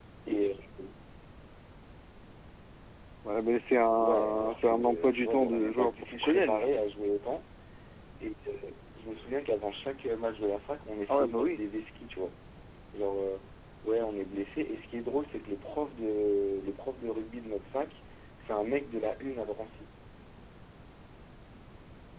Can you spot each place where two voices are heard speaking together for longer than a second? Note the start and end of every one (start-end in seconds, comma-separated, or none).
4.0-6.7